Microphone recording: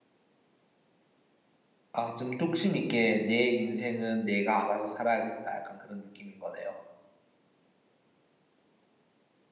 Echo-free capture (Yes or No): Yes